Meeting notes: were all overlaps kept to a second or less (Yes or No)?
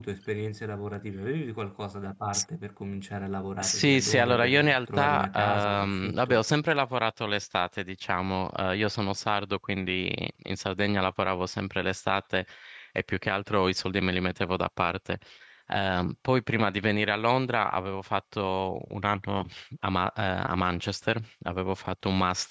No